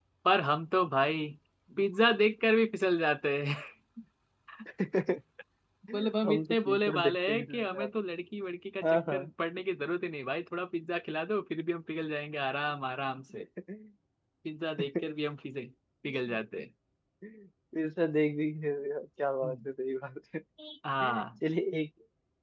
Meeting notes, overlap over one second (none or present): present